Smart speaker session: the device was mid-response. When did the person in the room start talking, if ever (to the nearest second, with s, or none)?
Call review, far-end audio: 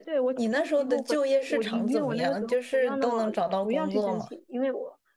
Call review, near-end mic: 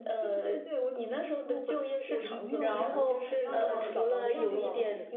3 s